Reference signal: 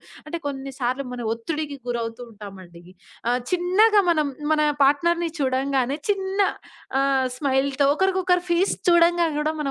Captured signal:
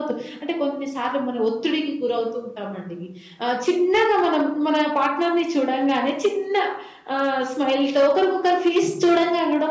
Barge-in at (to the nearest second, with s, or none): none